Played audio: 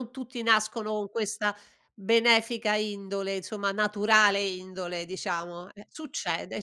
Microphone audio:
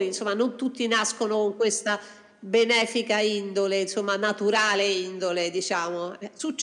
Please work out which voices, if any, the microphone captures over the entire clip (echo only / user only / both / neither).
echo only